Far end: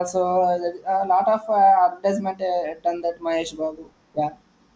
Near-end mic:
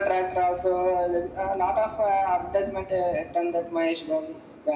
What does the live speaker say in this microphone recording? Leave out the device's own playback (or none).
none